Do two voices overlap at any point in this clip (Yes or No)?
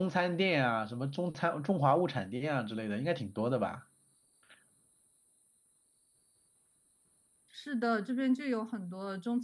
No